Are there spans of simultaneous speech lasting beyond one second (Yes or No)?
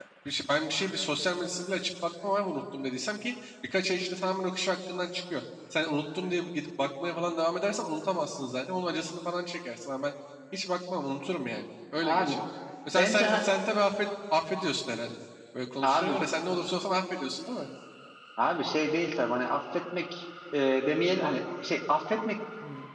No